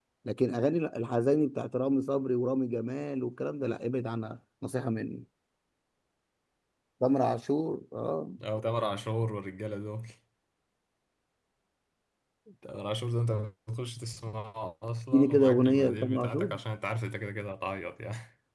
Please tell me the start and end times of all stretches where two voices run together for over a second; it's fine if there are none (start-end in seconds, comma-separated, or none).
15.1-16.6